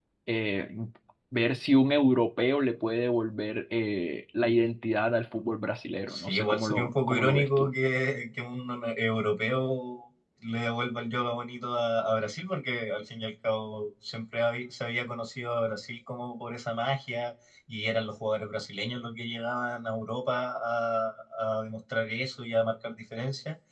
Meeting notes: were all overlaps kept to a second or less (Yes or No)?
No